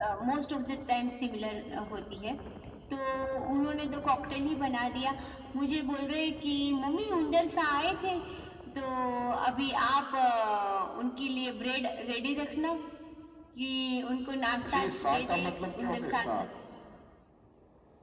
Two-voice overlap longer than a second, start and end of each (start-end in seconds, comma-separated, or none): 14.7-16.2